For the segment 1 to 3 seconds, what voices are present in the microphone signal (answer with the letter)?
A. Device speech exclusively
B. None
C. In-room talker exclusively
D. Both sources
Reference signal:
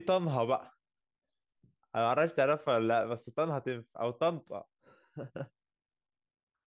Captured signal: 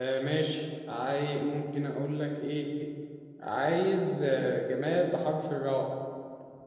C